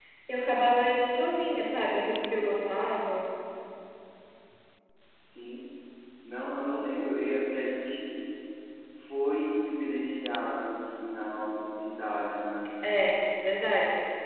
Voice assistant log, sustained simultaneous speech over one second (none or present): none